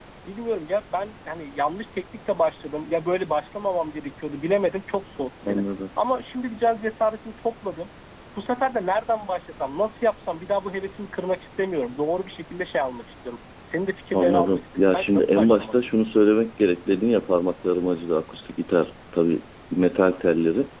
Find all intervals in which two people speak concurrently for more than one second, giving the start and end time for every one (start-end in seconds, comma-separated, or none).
14.1-15.8